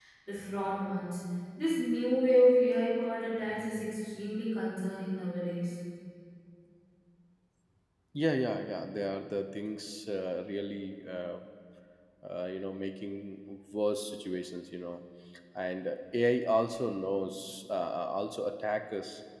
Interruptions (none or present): none